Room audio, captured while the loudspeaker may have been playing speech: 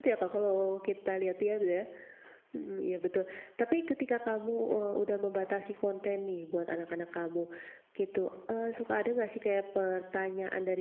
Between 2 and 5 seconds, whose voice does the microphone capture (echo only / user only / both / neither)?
user only